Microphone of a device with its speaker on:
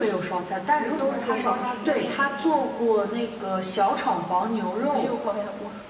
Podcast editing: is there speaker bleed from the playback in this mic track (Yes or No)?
Yes